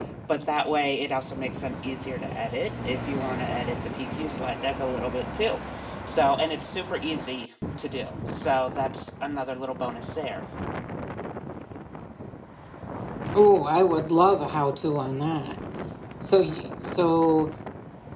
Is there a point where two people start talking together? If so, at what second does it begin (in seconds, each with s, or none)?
none